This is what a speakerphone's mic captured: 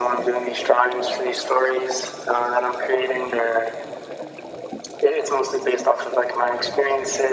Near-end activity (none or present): none